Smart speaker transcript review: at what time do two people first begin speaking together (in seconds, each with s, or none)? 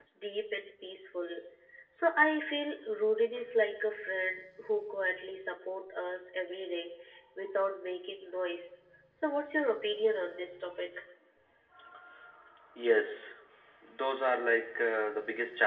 none